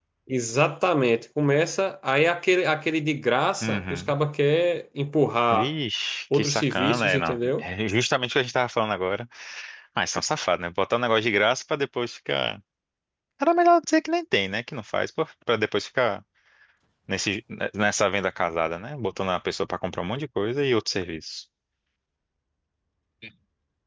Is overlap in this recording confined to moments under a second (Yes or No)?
No